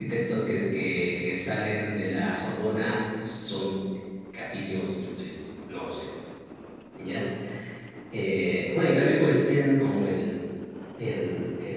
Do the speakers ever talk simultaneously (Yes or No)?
No